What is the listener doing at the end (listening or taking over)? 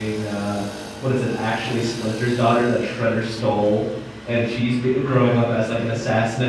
listening